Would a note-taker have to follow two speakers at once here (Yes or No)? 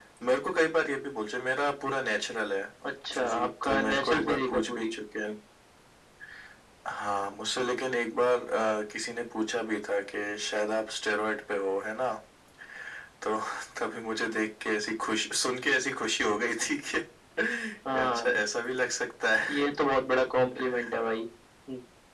Yes